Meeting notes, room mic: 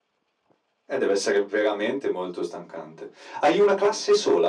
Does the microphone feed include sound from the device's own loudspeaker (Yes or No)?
Yes